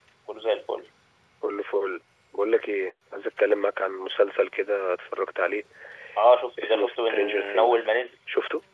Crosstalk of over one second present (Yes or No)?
Yes